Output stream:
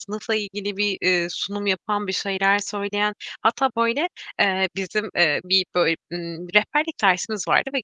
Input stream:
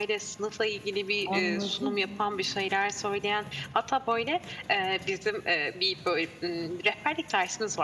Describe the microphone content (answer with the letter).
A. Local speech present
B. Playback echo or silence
A